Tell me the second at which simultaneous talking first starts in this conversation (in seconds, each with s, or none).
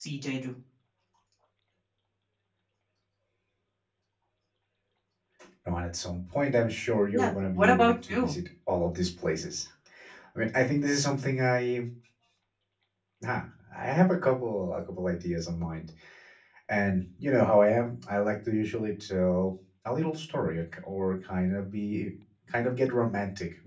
7.1 s